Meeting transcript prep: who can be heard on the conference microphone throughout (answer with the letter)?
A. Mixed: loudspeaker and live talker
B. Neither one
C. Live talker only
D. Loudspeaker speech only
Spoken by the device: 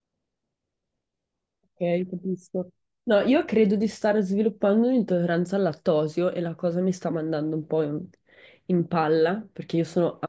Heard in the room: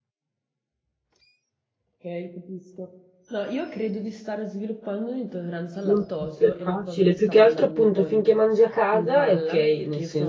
A